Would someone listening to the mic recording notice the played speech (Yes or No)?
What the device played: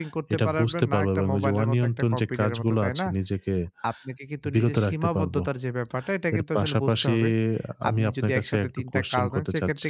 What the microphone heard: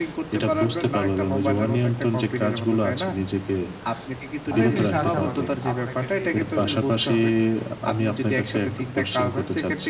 Yes